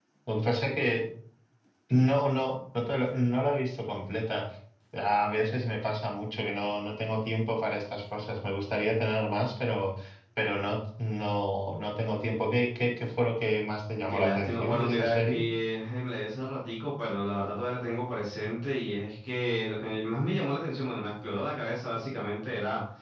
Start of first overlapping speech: 14.1 s

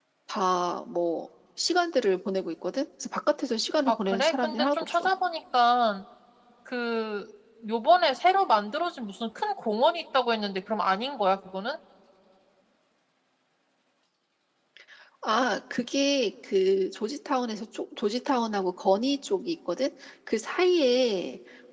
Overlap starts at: 3.9 s

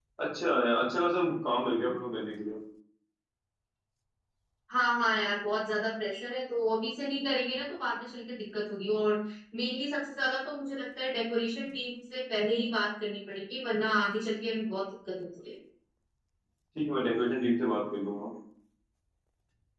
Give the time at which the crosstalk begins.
none

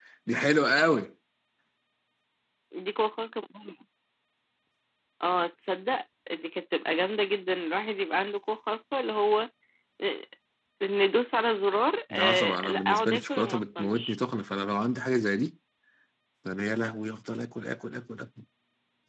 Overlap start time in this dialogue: 12.1 s

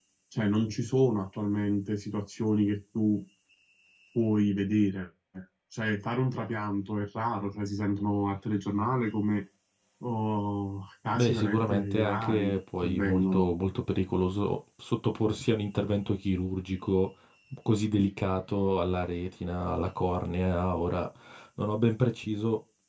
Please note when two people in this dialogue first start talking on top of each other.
11.2 s

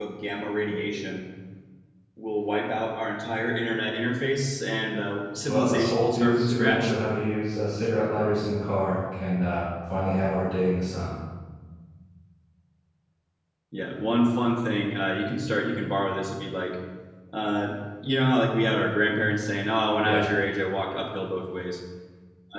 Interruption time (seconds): 5.5 s

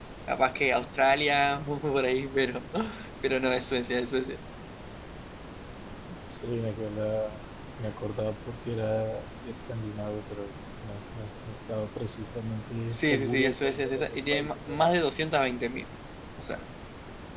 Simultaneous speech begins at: 12.9 s

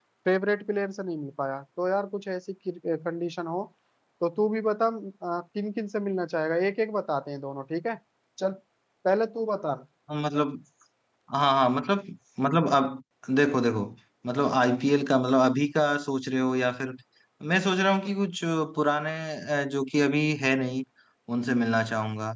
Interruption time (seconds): none

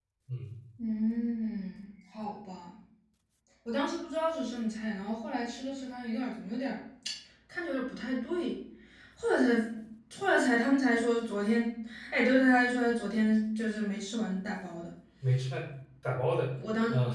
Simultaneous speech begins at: none

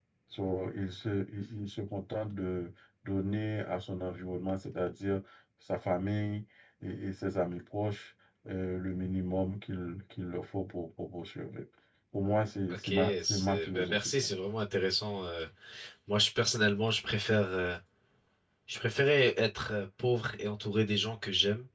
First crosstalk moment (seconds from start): 12.7 s

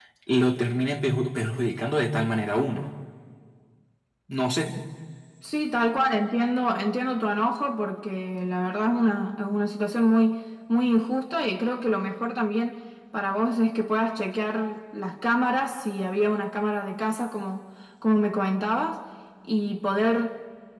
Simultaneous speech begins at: none

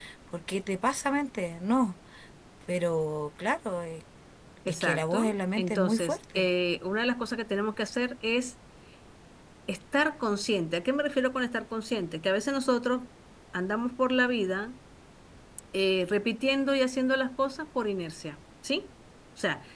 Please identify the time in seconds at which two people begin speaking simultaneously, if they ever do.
4.7 s

